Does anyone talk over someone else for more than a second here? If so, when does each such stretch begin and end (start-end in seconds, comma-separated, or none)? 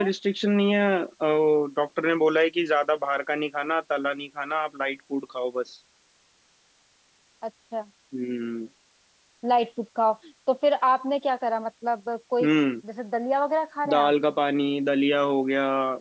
none